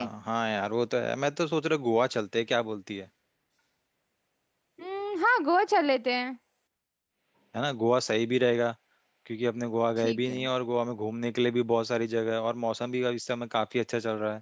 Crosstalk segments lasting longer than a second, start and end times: none

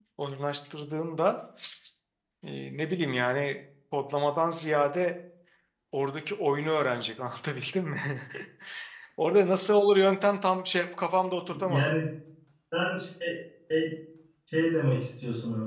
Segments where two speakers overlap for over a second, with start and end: none

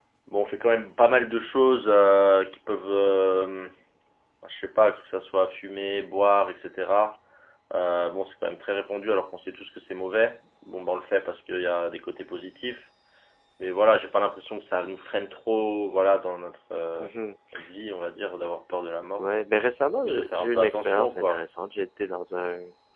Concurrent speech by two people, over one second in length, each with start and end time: 20.0-21.5

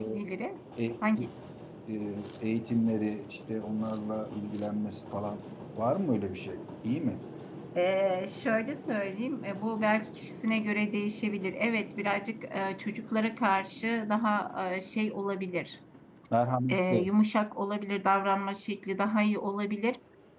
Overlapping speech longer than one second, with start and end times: none

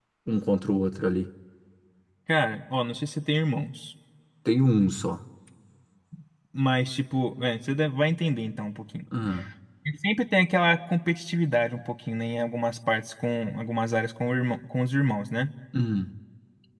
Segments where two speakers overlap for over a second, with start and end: none

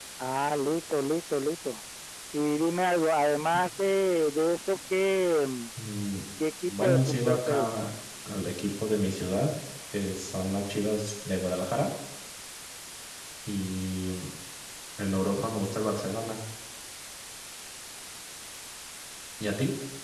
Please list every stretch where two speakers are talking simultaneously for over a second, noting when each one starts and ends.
6.7-7.9

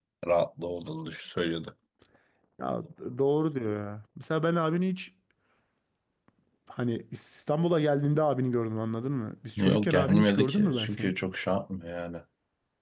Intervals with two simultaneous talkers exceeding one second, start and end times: 9.6-11.2

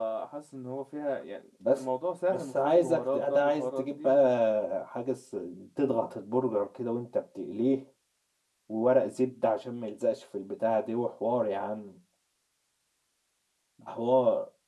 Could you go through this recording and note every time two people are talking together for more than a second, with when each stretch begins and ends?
2.3-4.3

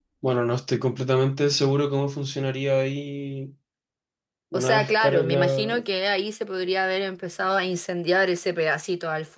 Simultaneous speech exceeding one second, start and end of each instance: 4.5-5.7

